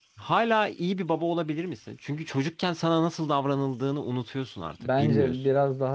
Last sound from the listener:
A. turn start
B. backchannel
A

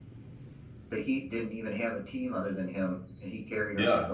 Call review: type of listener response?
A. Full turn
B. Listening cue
A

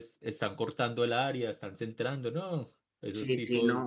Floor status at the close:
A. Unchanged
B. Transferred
B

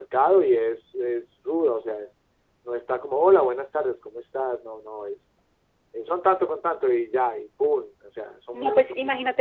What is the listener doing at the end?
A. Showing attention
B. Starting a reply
B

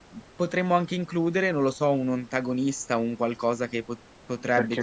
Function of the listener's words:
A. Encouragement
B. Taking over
A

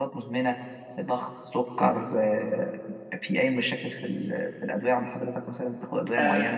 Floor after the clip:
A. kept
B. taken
B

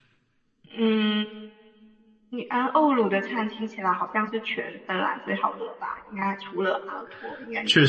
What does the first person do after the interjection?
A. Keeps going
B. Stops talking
B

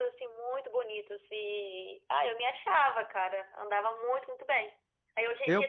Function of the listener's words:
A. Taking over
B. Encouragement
B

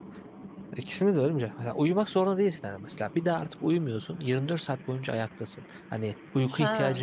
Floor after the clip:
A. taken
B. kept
A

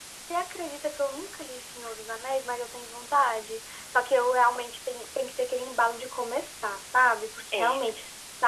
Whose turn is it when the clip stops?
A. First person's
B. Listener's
A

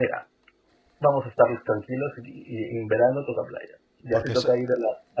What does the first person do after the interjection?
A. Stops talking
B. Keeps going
B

